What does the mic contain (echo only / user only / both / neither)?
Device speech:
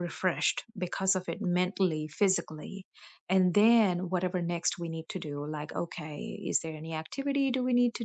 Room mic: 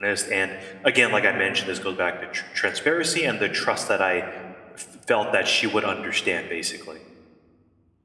user only